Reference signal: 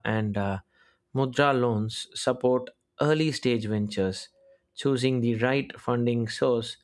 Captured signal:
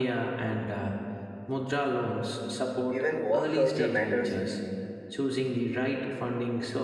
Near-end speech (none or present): present